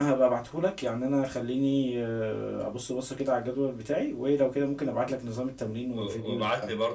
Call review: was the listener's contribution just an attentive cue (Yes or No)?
No